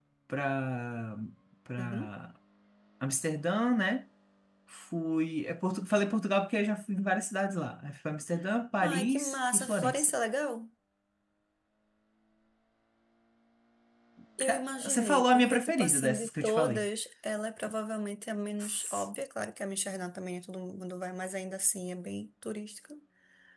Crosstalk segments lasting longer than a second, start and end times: 8.8-10.1, 14.4-16.8

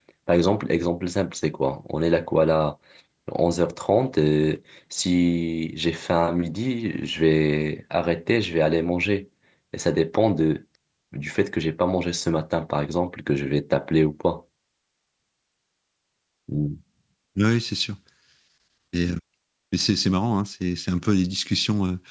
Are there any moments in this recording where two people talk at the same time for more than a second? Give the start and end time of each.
none

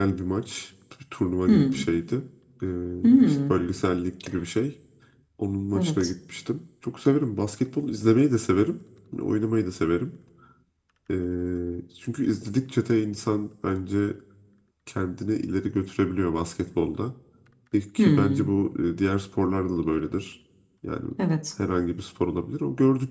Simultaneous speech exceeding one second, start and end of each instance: none

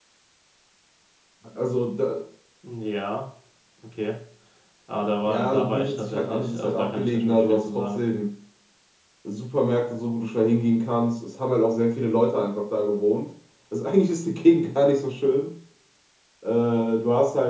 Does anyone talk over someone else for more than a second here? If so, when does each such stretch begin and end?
5.2-8.0

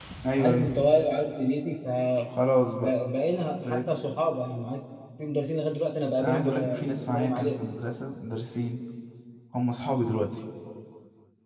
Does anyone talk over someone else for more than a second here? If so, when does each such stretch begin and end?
6.2-7.7

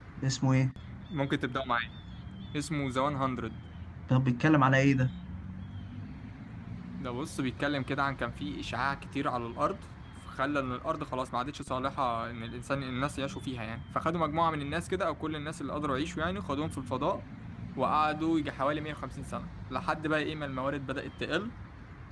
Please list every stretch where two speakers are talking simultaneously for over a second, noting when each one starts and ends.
none

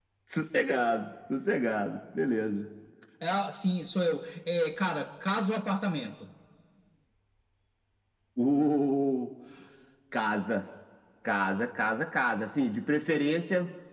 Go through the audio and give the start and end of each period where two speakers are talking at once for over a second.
none

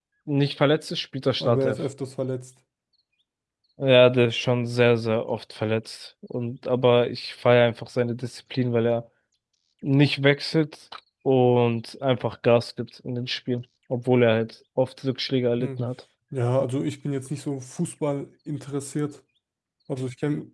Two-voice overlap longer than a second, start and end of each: none

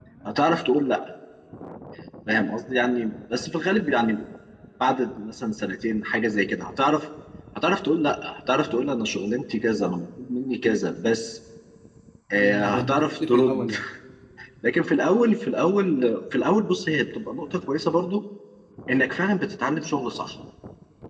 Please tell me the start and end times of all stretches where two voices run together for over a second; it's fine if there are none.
12.3-13.7

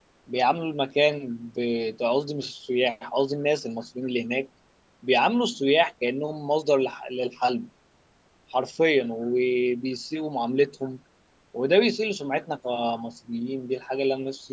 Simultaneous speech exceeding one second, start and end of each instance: none

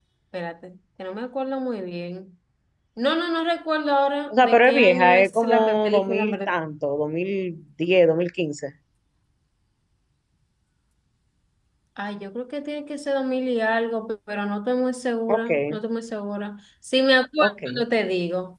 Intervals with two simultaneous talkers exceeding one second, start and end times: 4.3-6.5

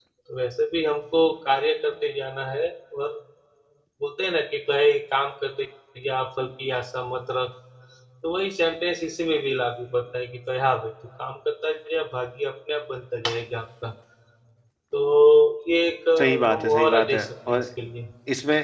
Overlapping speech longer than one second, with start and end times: 16.2-17.7

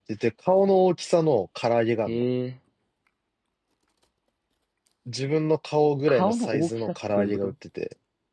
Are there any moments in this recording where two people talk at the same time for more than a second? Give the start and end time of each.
6.1-7.5

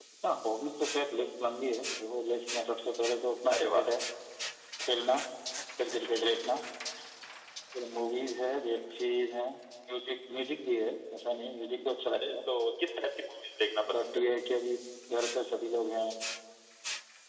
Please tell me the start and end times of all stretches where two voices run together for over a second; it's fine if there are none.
none

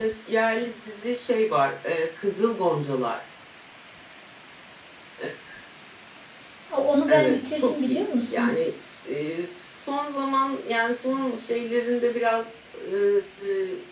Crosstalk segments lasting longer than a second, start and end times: 7.1-8.5

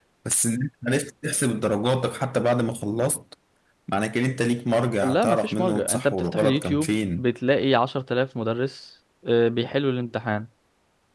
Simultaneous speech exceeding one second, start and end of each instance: 5.0-7.2

